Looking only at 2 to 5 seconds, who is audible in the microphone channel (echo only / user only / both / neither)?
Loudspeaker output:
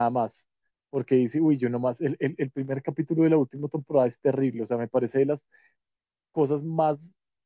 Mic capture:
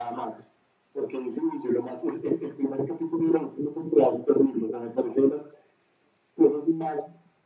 echo only